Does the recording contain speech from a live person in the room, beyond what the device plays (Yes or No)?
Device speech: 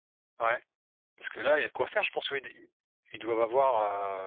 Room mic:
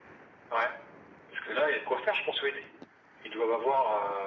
No